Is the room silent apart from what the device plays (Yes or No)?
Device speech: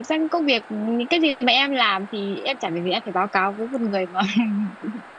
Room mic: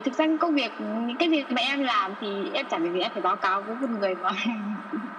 Yes